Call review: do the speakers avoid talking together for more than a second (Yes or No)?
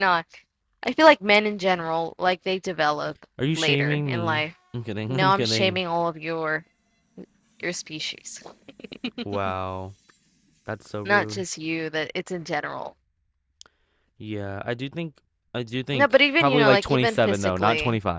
No